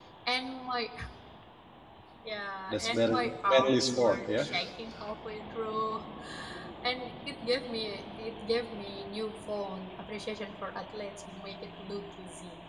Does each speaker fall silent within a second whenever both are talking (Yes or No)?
No